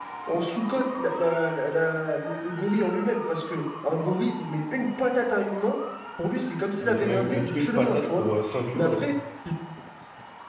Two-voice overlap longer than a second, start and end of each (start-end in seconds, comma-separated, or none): 6.8-8.2